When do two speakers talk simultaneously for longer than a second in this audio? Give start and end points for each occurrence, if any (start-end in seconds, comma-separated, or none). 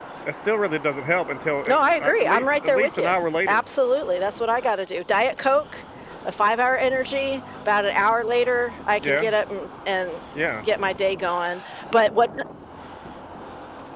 1.7-3.1